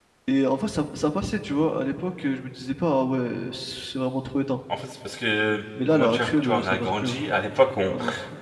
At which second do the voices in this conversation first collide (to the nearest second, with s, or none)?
6 s